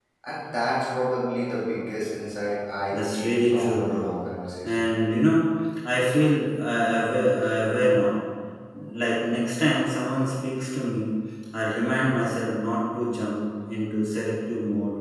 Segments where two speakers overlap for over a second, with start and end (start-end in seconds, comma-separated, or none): 2.9-4.2